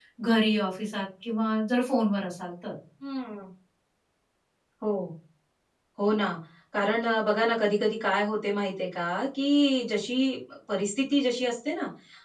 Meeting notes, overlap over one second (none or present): none